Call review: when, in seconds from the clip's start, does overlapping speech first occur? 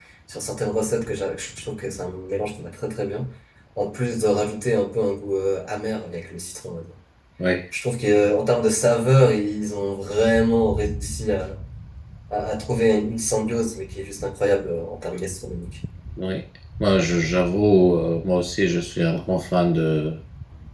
none

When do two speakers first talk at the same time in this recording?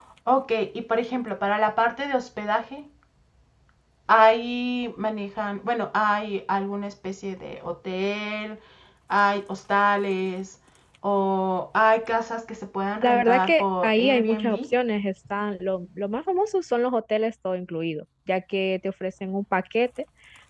13 s

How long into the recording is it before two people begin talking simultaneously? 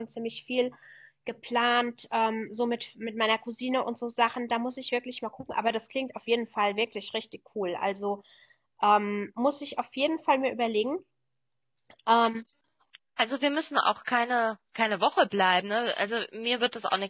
none

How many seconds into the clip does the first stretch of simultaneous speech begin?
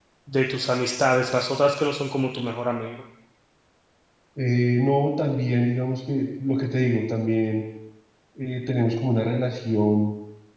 none

